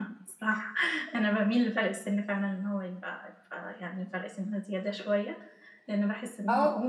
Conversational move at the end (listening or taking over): listening